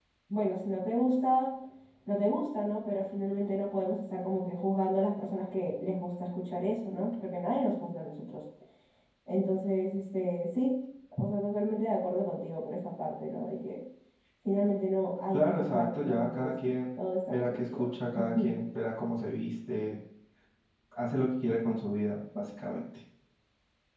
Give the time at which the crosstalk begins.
15.3 s

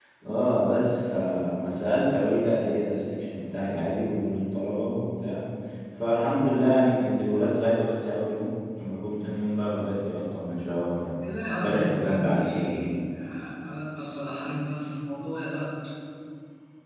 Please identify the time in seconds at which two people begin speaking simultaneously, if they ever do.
11.6 s

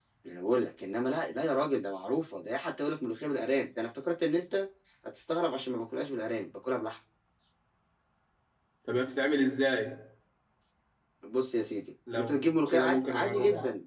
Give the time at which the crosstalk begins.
12.1 s

